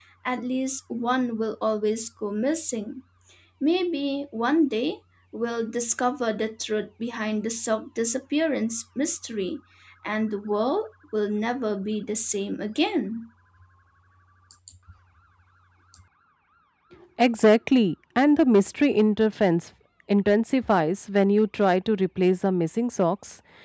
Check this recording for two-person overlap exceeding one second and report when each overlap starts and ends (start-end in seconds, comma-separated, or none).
none